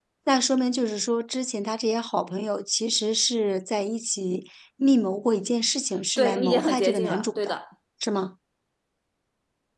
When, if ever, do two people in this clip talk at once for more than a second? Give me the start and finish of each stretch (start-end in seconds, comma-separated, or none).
6.2-7.6